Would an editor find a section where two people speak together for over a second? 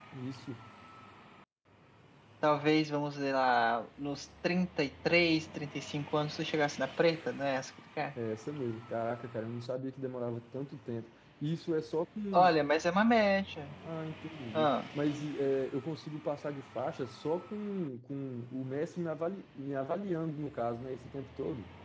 No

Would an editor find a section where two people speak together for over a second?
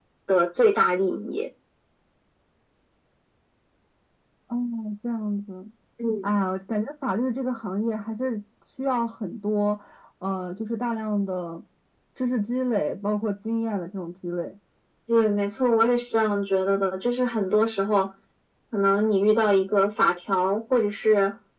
No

